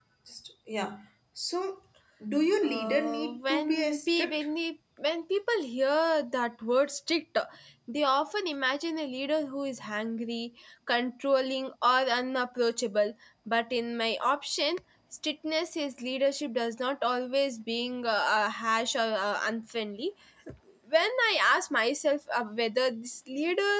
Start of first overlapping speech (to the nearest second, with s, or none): 3 s